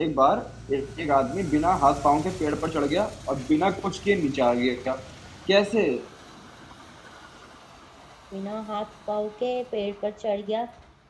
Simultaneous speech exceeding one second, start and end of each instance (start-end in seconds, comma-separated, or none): none